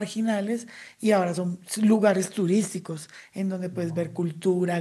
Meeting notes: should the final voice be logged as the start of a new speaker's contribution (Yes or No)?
No